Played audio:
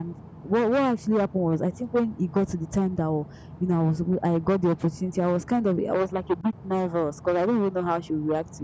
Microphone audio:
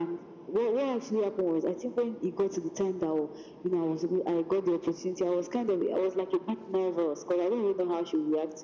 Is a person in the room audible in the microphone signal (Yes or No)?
No